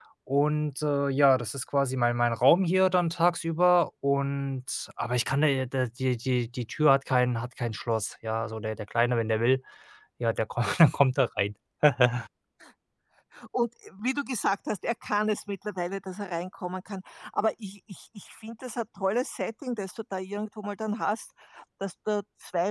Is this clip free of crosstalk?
Yes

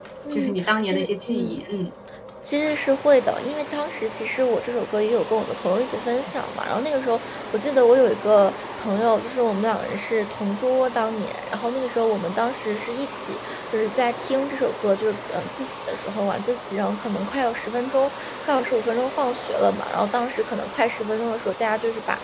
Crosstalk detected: Yes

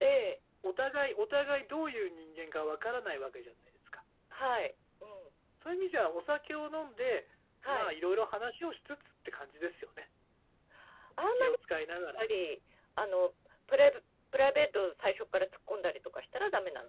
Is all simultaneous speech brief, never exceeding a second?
Yes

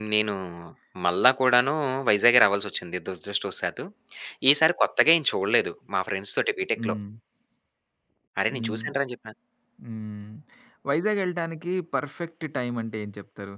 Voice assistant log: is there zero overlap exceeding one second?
Yes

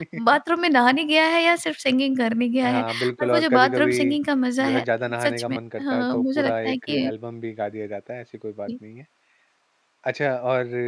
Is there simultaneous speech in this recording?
Yes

